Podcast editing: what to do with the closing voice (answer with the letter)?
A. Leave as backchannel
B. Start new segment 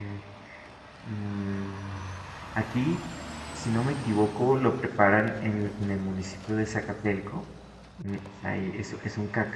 A